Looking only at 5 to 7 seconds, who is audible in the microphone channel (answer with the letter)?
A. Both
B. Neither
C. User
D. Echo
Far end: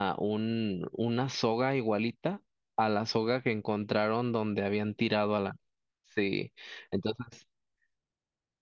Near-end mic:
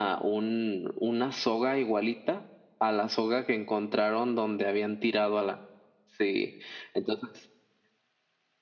D